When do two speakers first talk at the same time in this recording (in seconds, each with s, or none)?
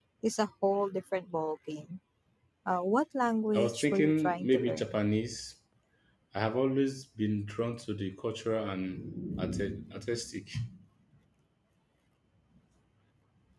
3.5 s